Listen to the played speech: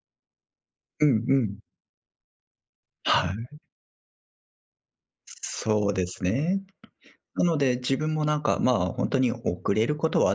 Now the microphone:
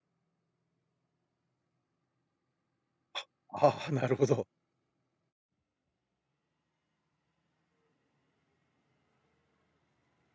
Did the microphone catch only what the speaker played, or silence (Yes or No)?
No